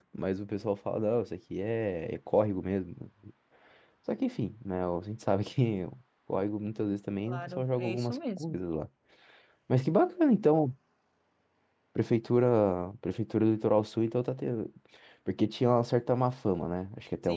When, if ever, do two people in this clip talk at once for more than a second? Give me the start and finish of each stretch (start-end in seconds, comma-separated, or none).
7.2-8.6